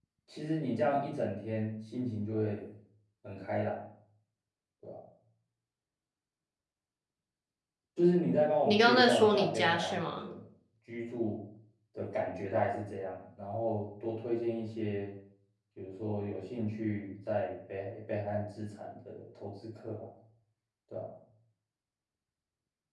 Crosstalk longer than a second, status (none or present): present